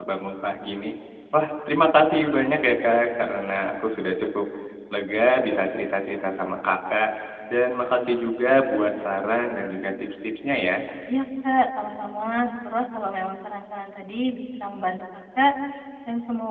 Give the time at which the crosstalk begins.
none

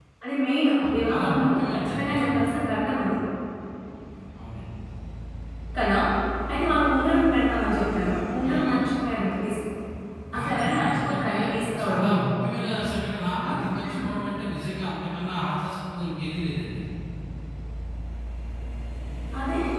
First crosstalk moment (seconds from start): 0.9 s

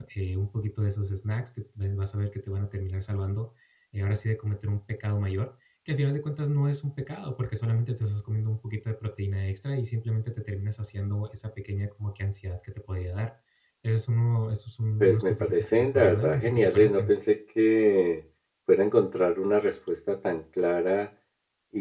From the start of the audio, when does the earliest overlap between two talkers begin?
15.0 s

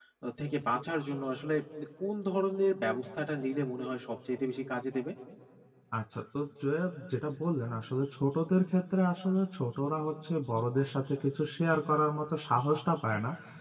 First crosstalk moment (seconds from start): none

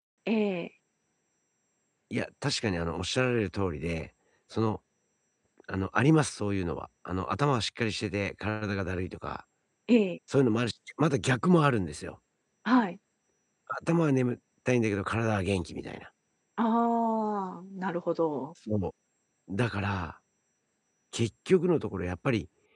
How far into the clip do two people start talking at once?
none

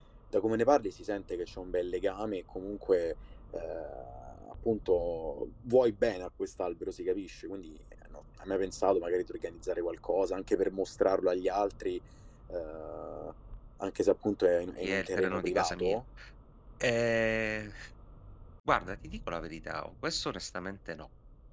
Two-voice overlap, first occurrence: 14.8 s

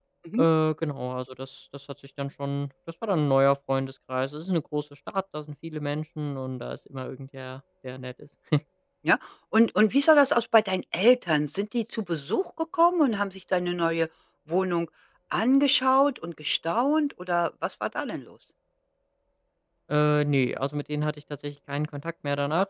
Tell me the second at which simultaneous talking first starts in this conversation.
none

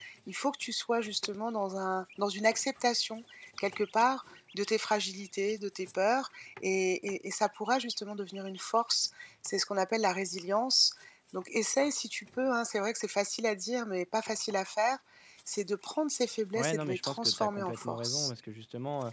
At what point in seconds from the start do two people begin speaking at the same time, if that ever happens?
16.6 s

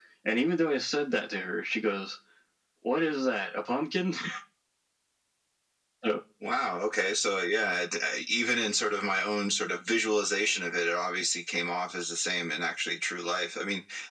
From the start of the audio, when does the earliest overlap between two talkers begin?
none

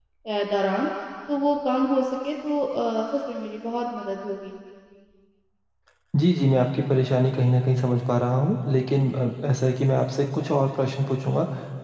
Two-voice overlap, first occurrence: none

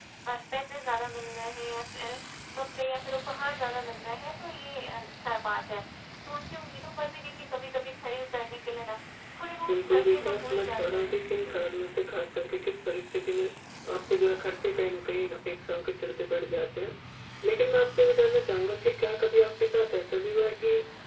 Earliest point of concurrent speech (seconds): 9.7 s

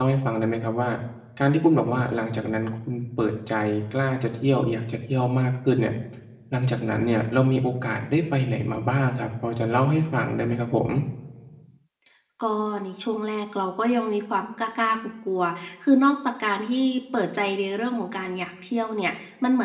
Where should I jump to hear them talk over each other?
none

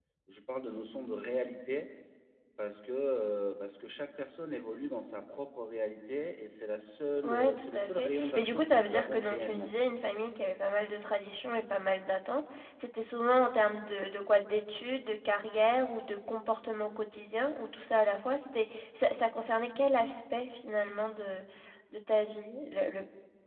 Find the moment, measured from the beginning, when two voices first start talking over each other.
7.2 s

